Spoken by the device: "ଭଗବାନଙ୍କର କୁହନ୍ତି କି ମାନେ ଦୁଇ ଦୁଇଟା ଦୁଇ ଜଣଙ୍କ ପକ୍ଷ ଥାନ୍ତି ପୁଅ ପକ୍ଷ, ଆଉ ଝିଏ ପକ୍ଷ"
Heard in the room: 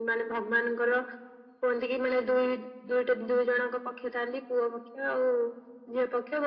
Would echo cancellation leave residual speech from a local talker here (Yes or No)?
No